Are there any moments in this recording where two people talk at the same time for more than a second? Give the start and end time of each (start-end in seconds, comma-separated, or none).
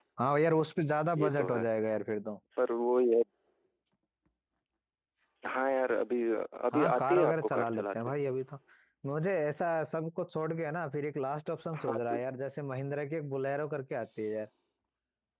6.7-8.0